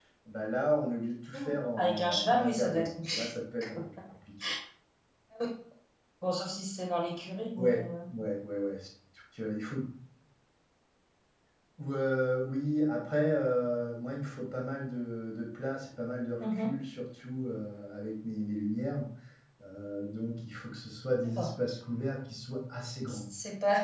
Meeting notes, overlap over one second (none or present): present